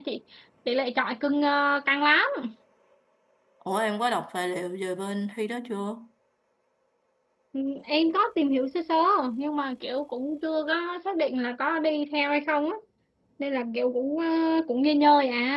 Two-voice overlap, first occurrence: none

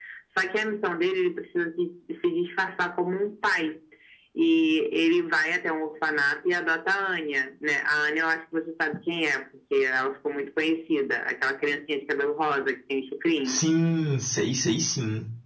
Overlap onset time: none

